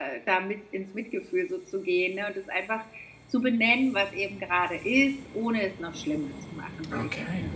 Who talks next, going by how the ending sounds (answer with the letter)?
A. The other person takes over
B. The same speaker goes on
B